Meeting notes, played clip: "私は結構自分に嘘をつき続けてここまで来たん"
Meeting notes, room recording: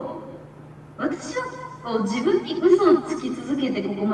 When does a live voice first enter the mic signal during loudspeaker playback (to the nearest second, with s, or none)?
none